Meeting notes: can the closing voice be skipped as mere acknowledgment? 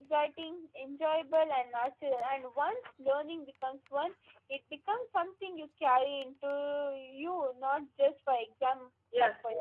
No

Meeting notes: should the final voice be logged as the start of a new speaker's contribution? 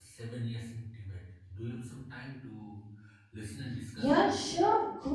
Yes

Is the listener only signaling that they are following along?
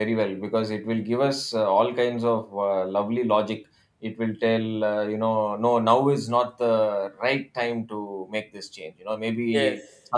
Yes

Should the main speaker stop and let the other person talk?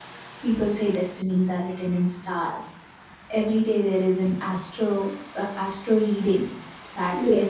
No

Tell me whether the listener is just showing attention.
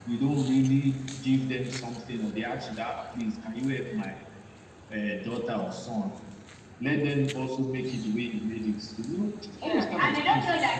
No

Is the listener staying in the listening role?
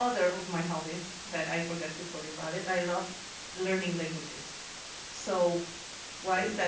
Yes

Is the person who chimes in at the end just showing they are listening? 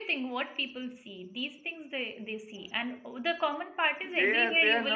No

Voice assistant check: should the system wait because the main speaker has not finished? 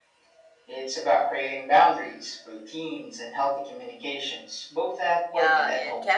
No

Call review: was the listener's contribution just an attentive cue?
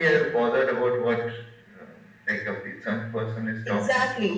No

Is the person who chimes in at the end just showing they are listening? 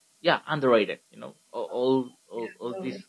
Yes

